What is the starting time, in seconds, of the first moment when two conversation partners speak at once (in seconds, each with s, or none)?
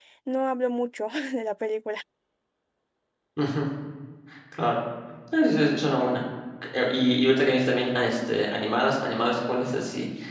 none